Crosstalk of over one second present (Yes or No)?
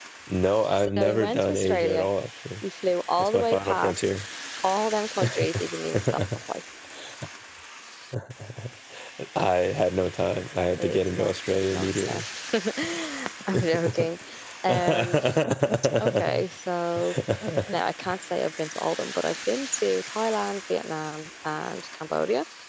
Yes